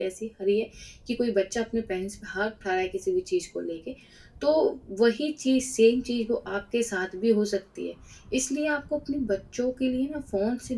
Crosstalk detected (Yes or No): No